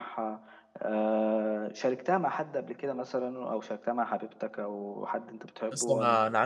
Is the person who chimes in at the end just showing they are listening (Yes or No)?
No